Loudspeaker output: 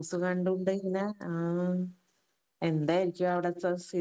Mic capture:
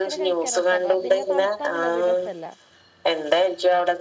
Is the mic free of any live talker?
No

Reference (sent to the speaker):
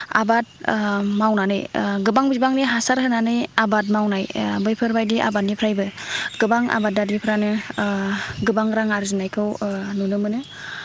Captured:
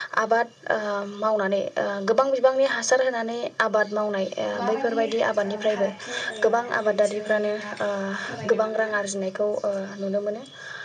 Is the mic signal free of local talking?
No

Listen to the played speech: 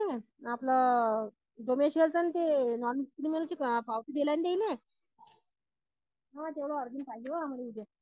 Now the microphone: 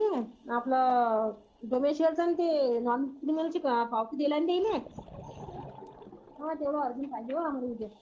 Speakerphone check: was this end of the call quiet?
Yes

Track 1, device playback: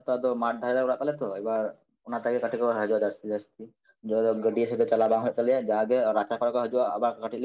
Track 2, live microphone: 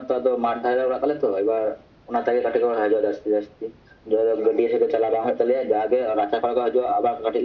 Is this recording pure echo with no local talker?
Yes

